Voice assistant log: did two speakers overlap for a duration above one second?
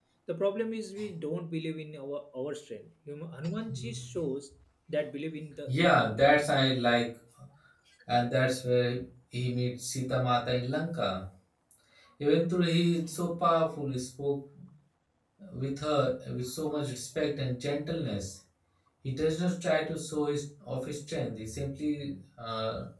No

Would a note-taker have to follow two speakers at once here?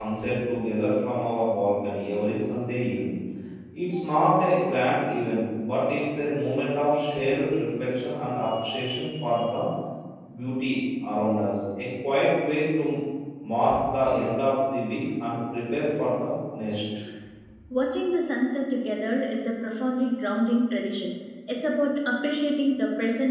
No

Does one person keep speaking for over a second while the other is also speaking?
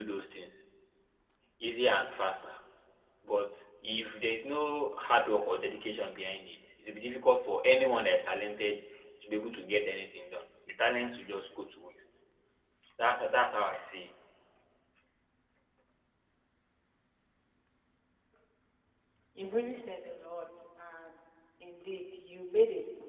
No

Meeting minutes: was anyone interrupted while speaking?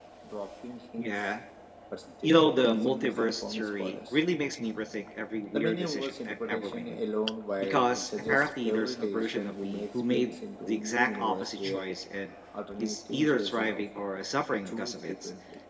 Yes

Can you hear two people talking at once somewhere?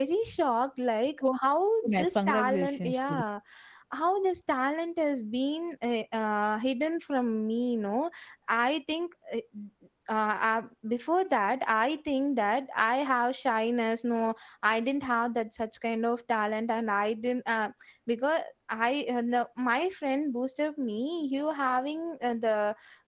Yes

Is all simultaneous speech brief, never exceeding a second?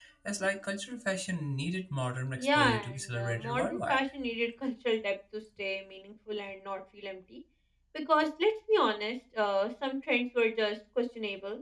No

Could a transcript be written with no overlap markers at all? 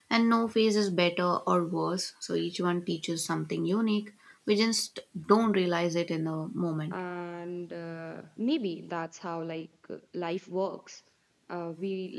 Yes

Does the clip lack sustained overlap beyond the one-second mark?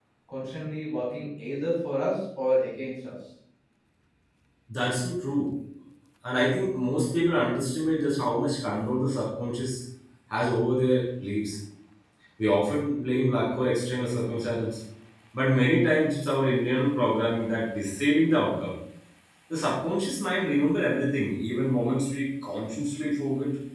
Yes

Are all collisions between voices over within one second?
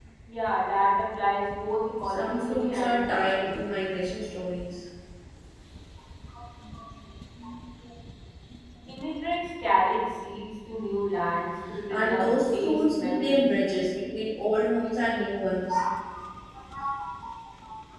No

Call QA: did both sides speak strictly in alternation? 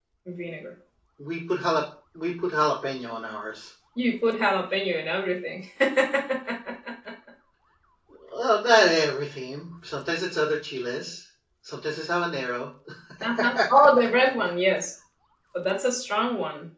Yes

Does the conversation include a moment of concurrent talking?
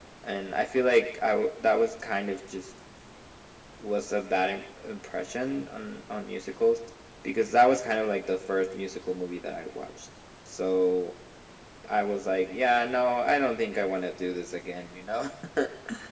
No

